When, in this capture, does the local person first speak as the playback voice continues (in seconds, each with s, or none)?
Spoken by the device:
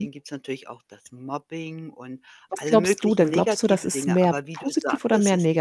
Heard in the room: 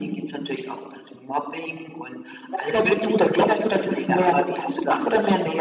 none